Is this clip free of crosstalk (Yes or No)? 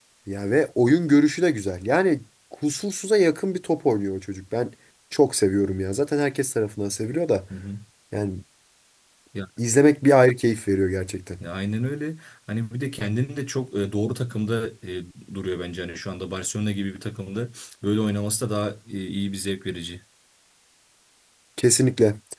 Yes